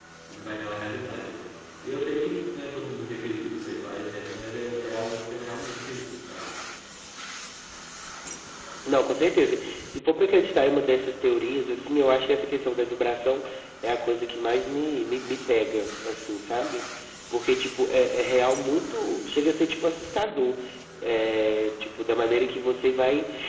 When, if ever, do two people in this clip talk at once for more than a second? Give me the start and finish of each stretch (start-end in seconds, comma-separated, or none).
none